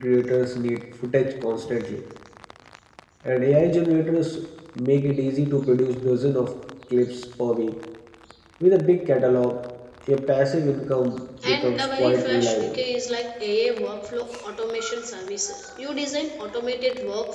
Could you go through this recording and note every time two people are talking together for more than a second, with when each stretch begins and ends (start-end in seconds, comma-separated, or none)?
11.4-12.8